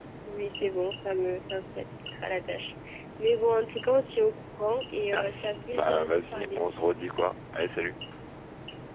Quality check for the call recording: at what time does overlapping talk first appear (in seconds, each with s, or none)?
5.1 s